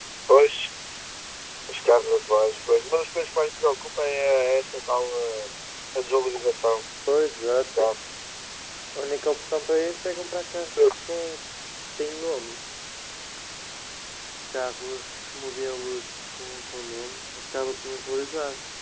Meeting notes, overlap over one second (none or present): none